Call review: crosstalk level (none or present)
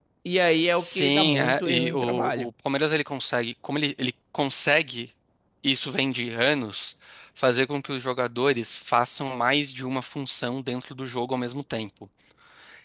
present